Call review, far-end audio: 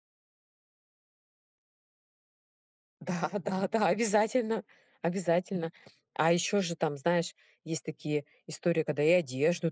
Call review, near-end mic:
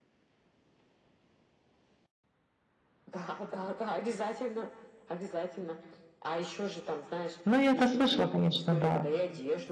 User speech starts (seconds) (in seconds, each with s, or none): 7.5 s